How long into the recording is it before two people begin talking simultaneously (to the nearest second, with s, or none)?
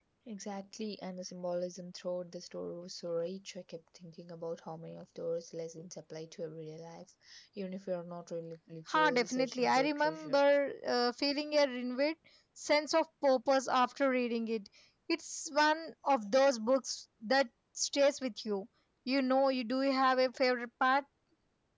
9 s